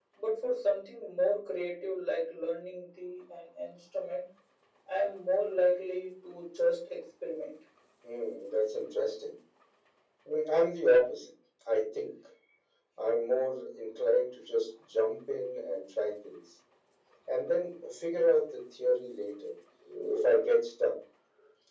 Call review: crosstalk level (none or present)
none